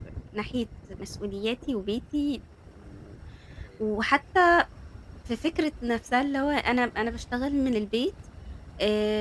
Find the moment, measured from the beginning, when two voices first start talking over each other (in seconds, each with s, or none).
none